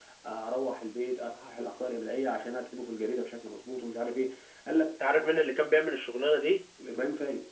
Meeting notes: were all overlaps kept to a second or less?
Yes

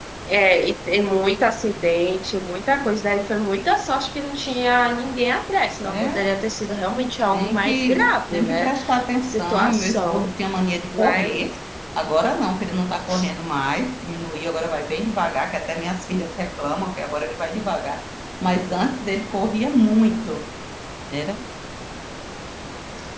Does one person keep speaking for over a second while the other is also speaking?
Yes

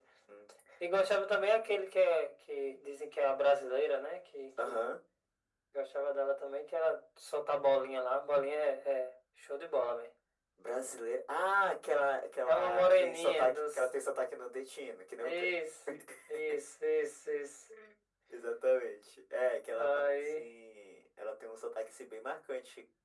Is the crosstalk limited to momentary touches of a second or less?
No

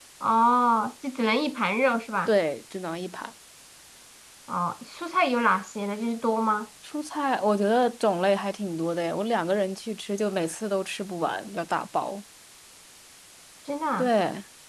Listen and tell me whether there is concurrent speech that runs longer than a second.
No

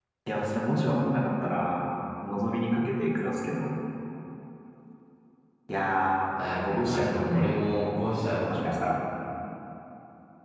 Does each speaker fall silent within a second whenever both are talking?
No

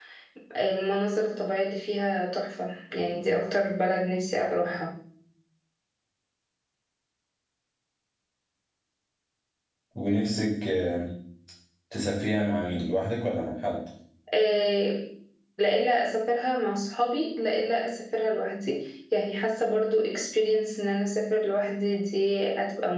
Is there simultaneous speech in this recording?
No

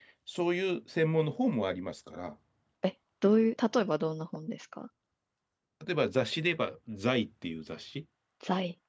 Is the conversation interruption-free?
Yes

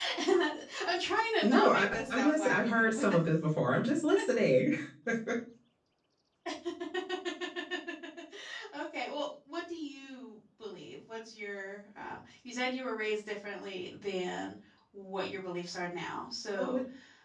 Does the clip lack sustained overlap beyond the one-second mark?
No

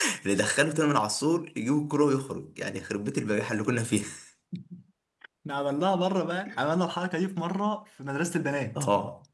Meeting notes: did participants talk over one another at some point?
No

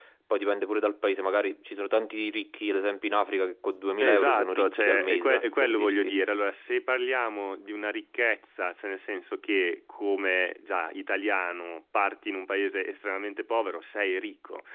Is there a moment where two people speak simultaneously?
Yes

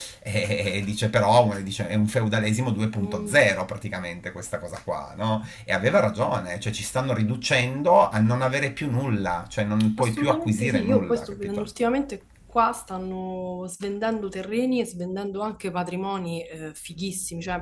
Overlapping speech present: Yes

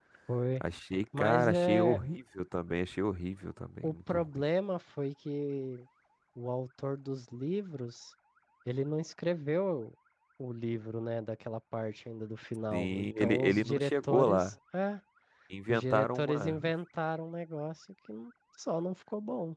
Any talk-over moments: Yes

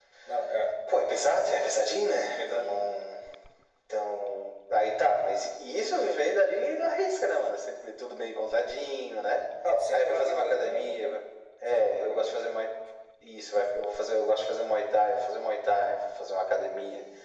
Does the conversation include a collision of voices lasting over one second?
Yes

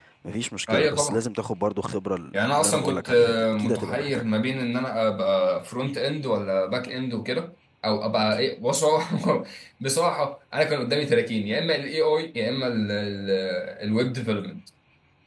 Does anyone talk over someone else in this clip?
Yes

